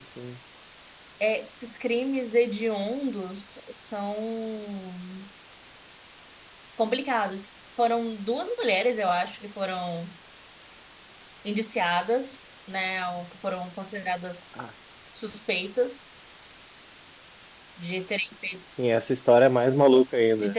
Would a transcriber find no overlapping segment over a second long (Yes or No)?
Yes